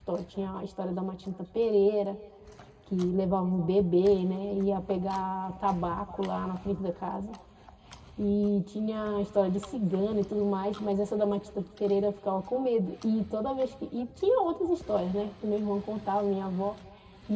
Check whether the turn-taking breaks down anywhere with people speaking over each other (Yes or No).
No